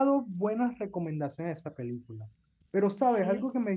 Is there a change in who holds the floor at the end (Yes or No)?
No